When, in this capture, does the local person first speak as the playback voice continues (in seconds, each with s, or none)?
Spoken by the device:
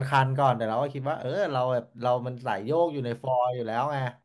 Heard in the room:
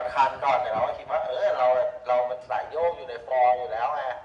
none